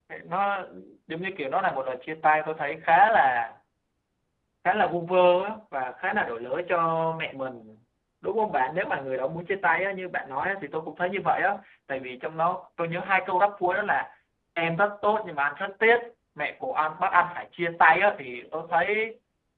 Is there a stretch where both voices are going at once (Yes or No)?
No